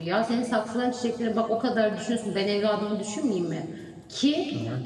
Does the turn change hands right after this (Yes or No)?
No